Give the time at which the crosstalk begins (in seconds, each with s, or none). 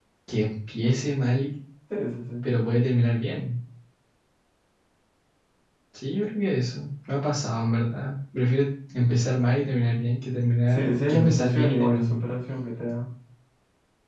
10.7 s